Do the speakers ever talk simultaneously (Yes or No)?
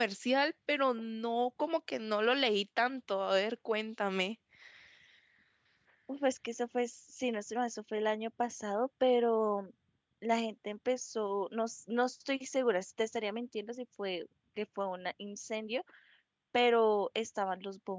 No